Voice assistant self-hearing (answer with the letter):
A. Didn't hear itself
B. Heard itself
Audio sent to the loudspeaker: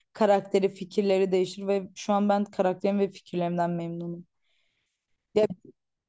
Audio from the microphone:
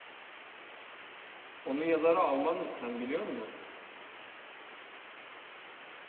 A